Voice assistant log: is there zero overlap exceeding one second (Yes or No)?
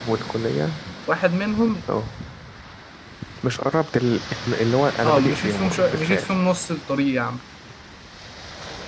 No